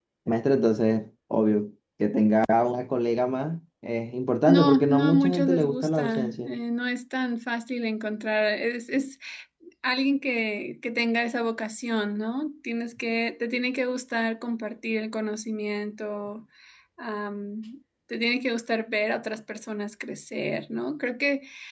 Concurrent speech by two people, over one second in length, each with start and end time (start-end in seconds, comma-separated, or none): 4.5-6.5